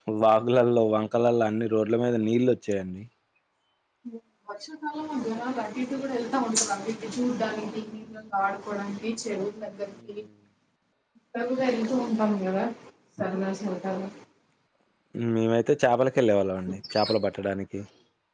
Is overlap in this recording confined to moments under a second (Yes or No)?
Yes